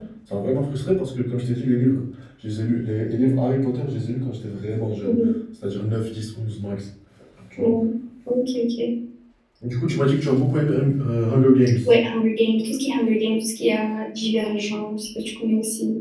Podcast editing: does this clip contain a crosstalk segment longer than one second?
No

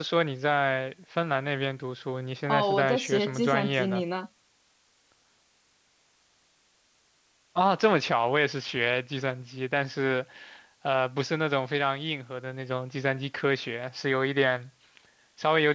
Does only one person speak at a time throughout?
No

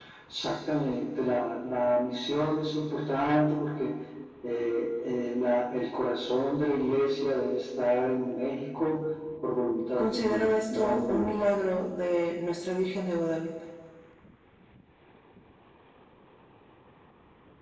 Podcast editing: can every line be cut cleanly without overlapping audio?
No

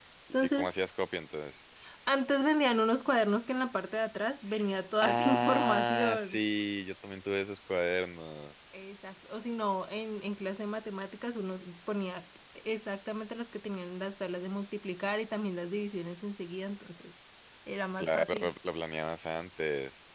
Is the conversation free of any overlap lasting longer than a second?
No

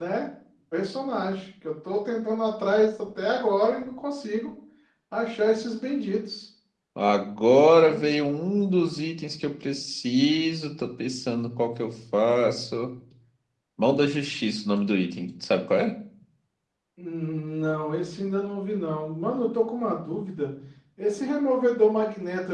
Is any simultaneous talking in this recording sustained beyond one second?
No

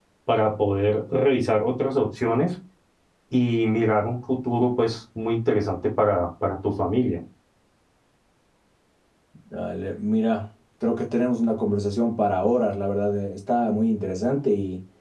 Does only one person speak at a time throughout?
Yes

